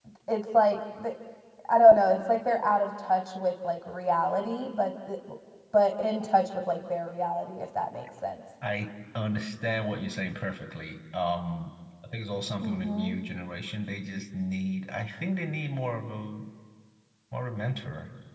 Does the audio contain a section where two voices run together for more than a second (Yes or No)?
No